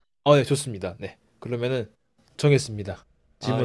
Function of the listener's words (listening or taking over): taking over